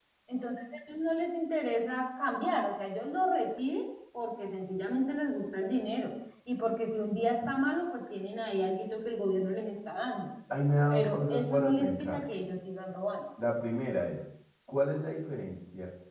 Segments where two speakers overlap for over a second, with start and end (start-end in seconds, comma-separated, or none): 10.9-12.2